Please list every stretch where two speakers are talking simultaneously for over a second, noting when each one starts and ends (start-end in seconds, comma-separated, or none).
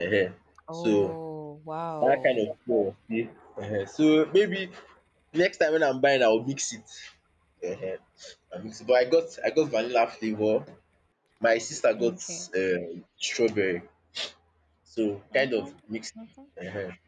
none